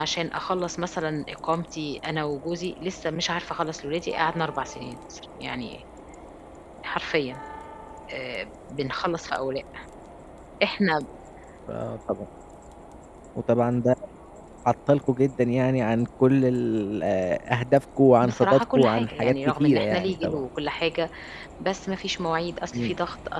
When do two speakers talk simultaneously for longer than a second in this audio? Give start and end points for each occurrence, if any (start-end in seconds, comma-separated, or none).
18.2-20.4